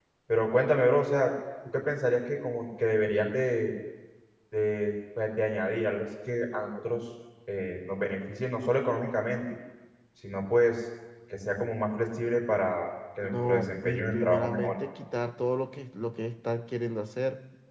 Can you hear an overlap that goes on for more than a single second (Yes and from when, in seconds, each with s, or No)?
Yes, from 13.2 s